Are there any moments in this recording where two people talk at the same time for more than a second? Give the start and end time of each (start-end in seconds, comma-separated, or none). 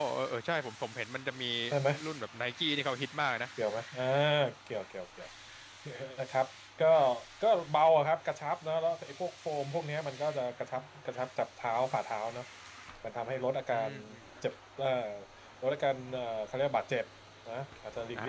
none